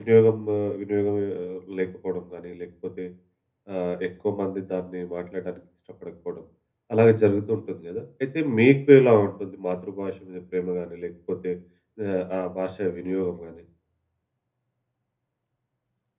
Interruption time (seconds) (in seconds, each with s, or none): none